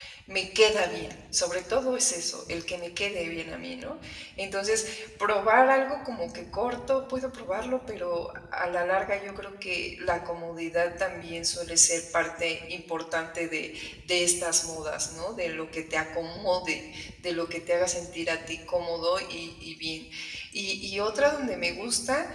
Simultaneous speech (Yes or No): No